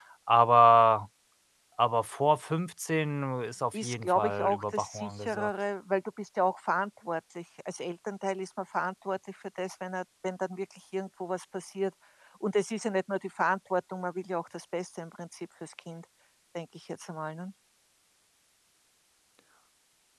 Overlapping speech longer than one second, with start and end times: 3.7-5.5

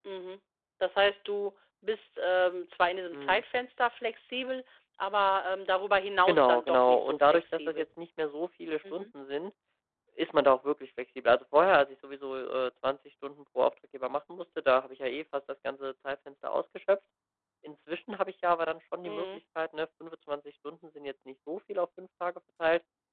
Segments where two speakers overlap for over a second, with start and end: 6.3-7.8

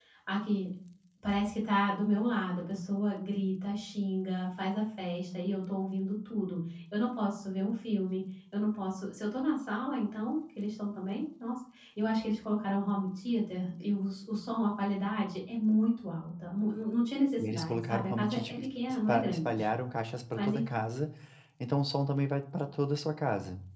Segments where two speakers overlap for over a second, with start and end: 17.4-19.6

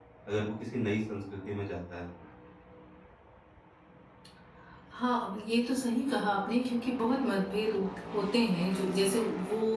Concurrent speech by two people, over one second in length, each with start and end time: none

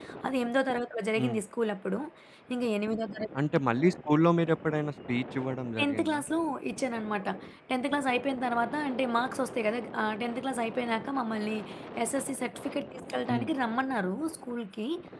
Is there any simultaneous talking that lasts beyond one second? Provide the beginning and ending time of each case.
none

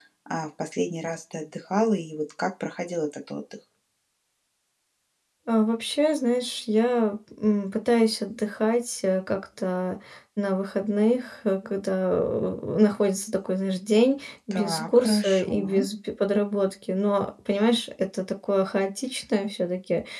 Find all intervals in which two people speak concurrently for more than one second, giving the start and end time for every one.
14.5-15.8

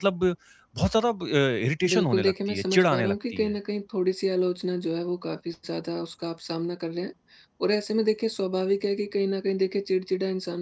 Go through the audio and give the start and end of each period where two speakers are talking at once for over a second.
1.9-3.5

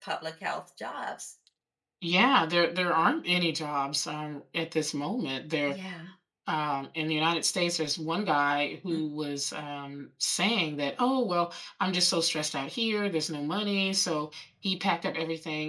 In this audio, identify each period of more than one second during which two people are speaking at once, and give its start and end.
none

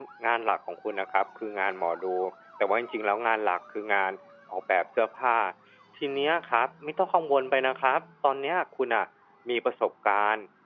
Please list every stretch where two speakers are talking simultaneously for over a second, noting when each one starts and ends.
none

